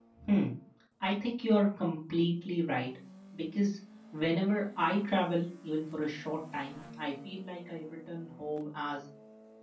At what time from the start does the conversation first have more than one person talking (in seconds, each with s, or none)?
none